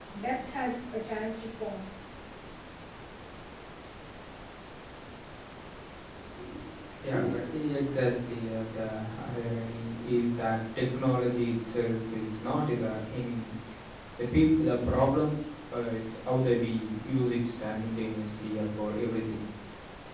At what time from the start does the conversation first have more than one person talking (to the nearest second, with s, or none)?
none